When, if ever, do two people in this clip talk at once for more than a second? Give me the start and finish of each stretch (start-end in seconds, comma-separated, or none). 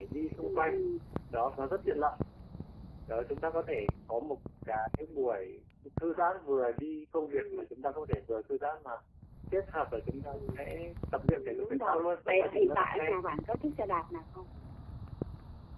11.3-13.2